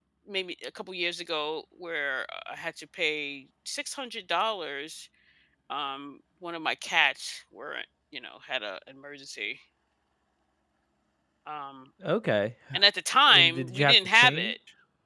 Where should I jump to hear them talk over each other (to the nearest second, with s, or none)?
13 s